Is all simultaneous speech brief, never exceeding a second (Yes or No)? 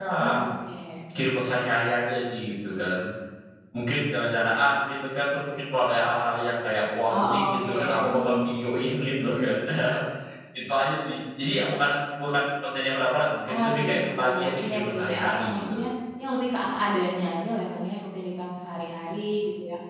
No